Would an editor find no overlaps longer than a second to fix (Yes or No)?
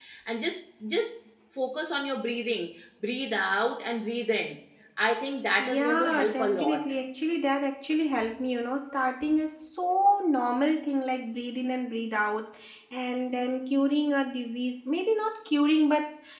No